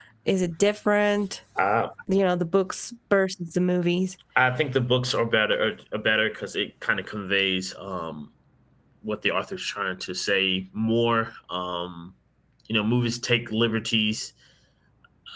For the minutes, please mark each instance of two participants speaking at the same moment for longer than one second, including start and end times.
none

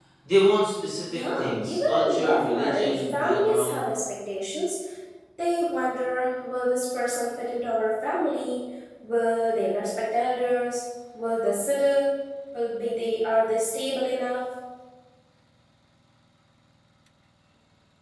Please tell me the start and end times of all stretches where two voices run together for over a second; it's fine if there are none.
1.1-3.8

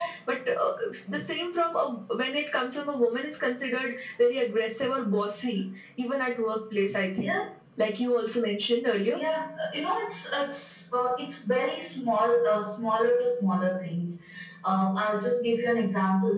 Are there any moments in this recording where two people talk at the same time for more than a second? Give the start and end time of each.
none

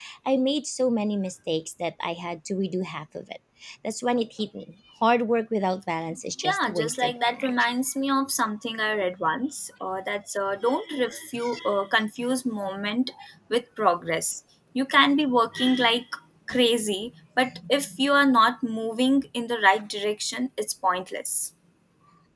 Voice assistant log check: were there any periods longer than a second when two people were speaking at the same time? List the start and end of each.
6.4-7.7

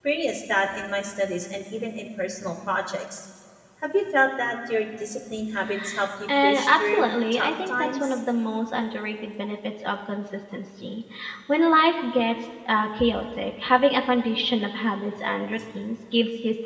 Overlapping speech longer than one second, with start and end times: 6.3-8.1

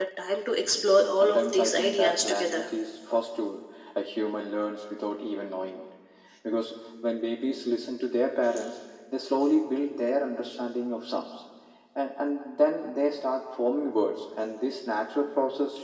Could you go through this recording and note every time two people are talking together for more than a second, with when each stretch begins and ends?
0.6-2.6

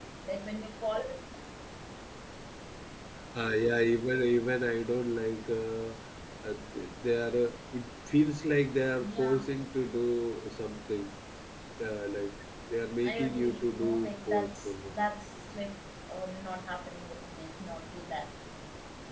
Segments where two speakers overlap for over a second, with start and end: 13.0-14.9

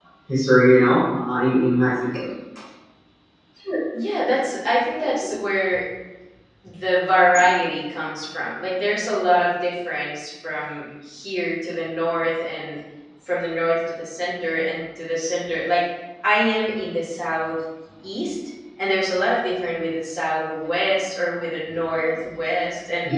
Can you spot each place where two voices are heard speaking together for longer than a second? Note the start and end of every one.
none

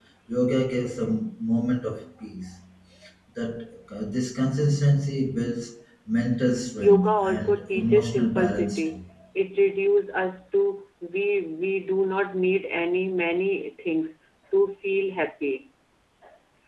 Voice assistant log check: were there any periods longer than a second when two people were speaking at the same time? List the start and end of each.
6.8-9.0

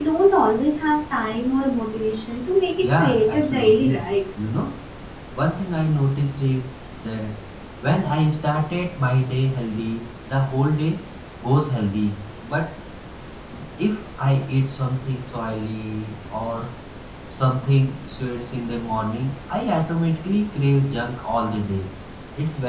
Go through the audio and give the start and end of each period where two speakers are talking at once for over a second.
2.8-4.1

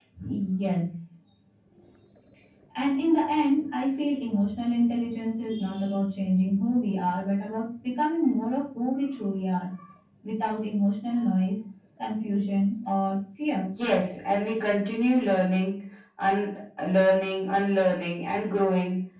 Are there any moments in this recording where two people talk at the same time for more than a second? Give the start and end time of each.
none

